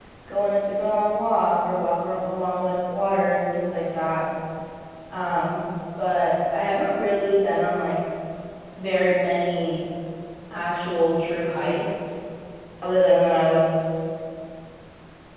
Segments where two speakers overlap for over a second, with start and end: none

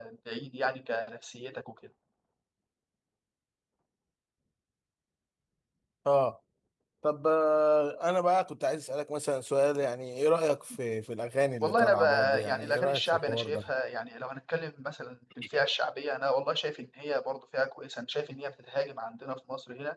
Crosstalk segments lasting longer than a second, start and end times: 11.6-13.6

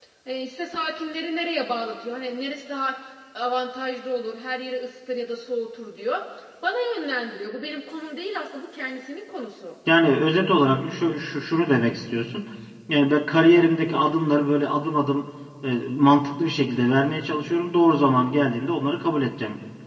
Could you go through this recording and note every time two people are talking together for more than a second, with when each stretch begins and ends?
none

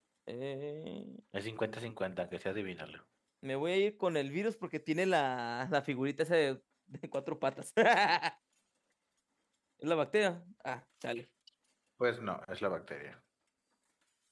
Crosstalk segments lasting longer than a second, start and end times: none

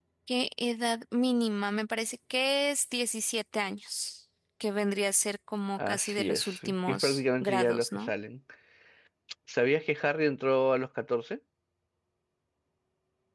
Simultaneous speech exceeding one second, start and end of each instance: 5.8-8.1

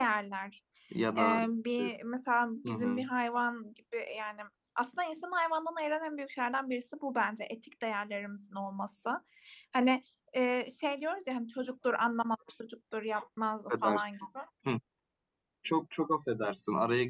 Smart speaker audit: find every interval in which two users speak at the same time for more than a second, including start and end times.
none

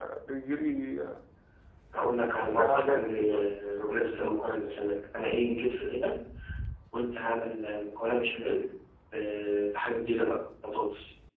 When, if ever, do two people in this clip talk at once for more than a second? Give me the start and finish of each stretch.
1.9-4.0

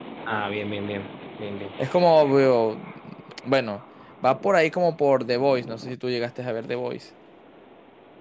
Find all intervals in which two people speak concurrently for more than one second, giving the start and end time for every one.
none

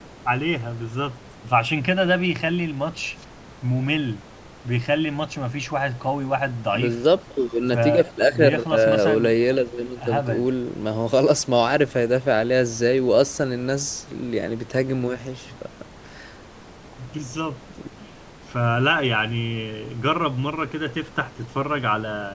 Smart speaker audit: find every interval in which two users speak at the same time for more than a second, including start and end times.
7.7-9.4

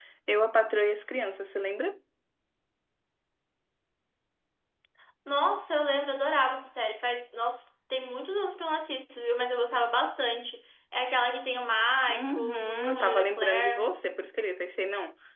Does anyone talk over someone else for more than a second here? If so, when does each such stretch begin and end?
12.1-13.9

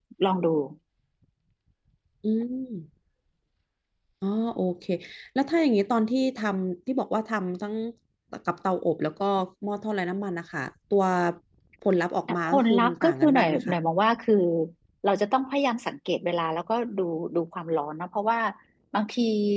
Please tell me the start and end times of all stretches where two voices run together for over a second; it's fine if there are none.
12.5-13.8

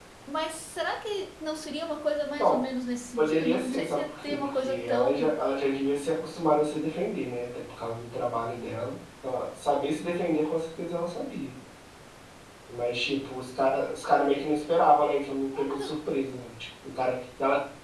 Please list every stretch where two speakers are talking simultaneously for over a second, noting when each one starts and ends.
3.2-5.4

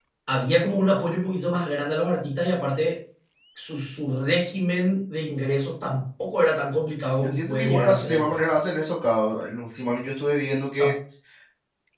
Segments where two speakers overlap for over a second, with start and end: 7.2-8.4

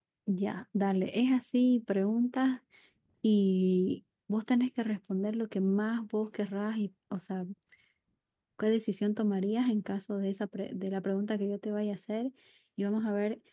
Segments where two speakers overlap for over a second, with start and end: none

